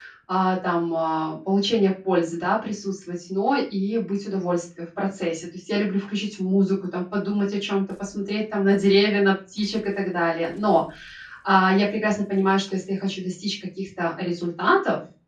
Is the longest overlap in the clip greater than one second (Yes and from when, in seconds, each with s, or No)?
No